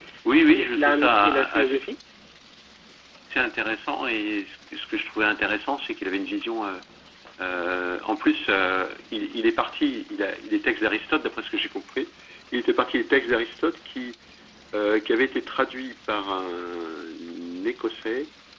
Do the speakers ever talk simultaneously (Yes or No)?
Yes